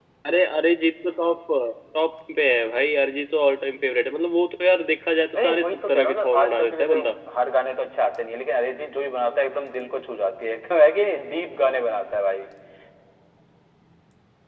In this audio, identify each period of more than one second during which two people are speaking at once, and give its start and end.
5.3-7.0

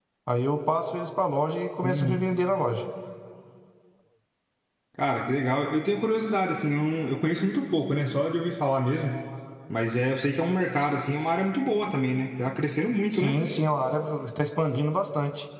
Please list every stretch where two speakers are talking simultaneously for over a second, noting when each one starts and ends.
none

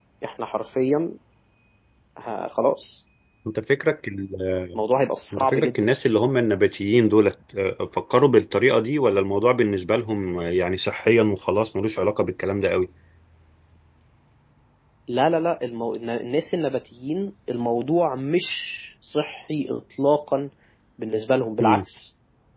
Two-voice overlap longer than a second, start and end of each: none

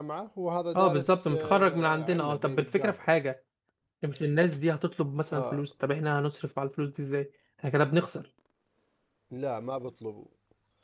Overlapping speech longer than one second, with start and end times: 0.7-3.0

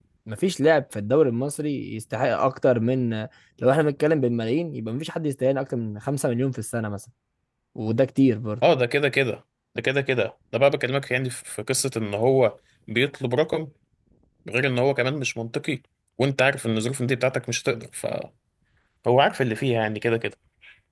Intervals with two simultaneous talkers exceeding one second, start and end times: none

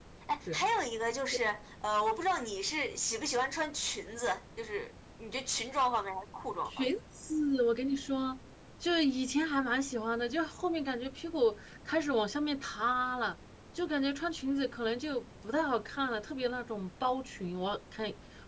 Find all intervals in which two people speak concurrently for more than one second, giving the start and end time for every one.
none

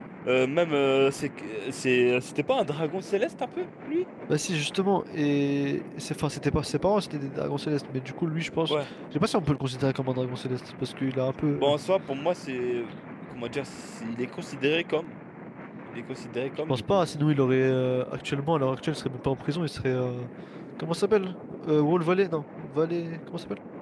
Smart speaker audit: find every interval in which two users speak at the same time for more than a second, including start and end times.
none

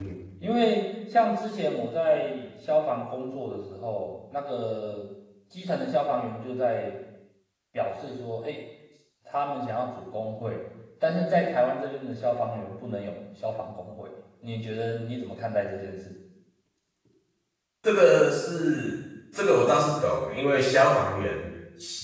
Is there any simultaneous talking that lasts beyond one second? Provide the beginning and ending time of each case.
none

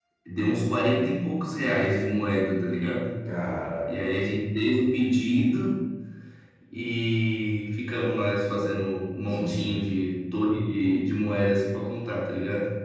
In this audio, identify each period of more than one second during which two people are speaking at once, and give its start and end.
none

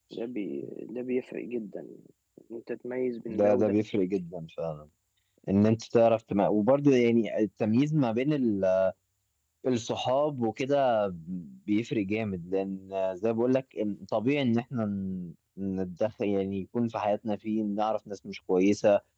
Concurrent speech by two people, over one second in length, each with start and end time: none

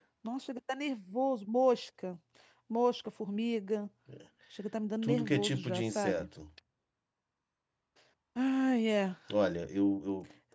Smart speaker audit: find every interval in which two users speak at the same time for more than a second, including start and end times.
5.0-6.3

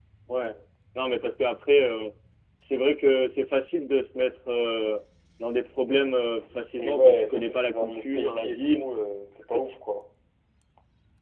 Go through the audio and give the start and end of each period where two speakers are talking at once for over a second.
6.8-8.8

